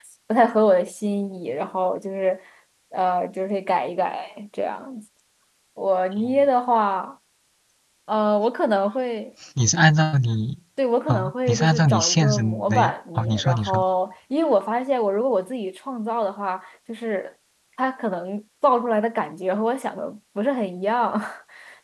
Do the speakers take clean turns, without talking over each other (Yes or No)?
No